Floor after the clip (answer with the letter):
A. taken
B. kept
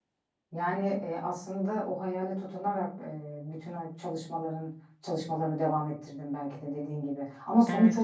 B